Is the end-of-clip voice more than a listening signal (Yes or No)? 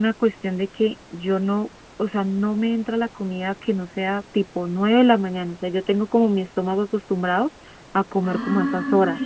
Yes